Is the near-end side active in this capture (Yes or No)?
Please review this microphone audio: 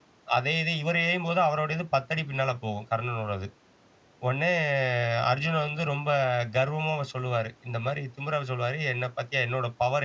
Yes